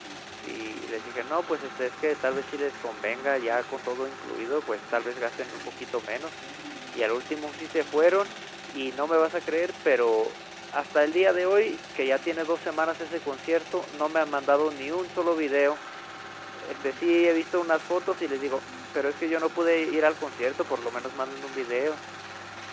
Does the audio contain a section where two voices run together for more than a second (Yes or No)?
No